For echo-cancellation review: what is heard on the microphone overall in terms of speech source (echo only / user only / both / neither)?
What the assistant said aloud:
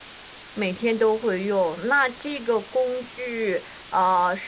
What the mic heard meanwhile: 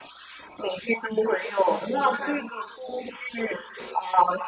echo only